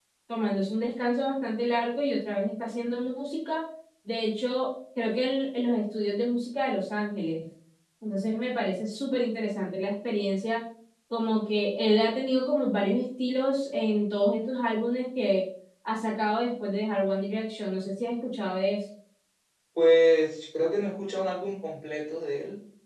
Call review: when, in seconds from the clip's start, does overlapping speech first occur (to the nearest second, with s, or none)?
none